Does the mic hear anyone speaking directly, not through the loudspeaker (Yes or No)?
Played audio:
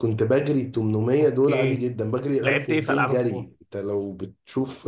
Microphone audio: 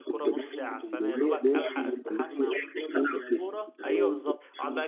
Yes